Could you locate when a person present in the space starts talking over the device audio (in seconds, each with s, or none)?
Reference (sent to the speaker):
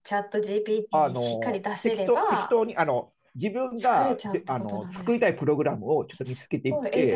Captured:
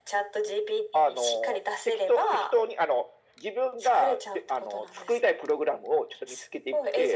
none